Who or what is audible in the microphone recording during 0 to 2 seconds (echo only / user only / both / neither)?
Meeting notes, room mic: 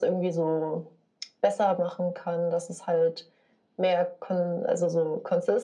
echo only